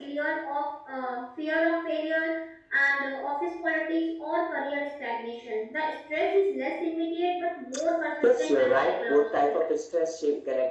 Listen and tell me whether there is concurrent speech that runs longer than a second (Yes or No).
Yes